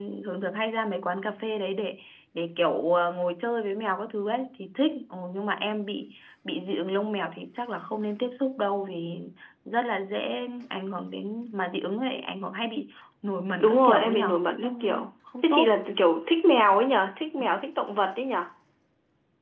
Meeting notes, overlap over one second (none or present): present